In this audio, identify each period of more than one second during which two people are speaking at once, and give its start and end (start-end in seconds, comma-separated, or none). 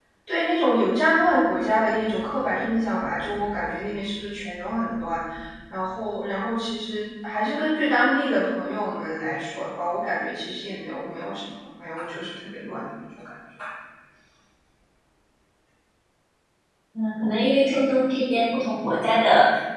none